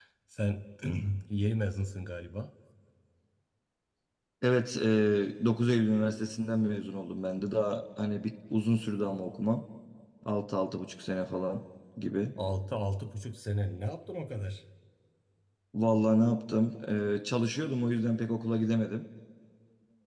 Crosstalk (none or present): none